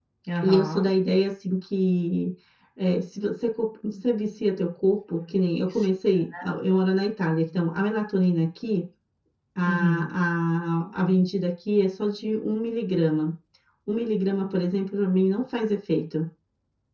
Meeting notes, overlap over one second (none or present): none